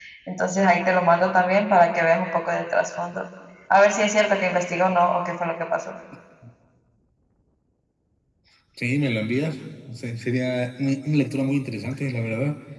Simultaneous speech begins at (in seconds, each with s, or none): none